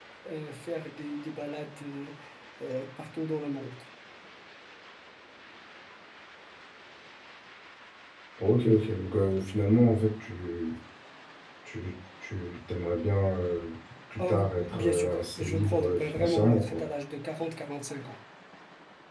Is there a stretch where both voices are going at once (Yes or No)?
Yes